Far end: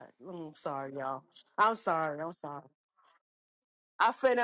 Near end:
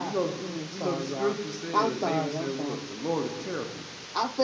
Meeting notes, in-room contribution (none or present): present